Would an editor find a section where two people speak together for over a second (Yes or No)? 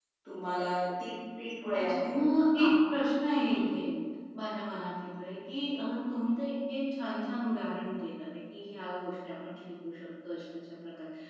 No